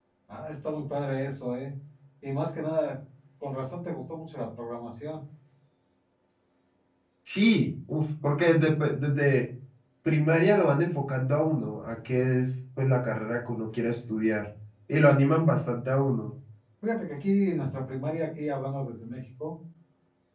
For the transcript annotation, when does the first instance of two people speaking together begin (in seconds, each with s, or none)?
none